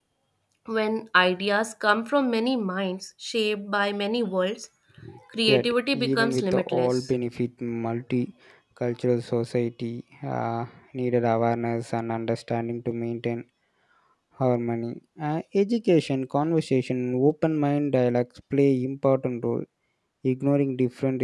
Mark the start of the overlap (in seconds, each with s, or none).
5.5 s